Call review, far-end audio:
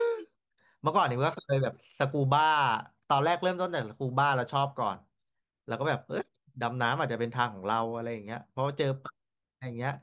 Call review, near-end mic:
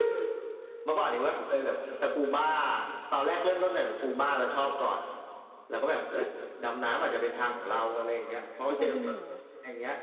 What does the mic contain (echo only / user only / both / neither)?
both